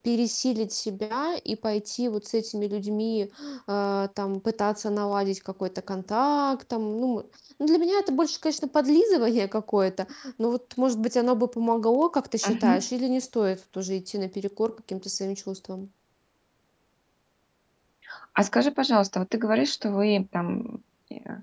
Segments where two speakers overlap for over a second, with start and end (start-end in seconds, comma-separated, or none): none